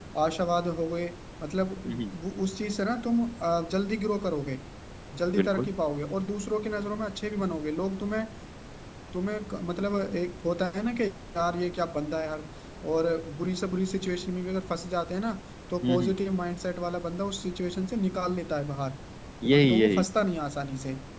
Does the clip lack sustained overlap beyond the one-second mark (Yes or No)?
Yes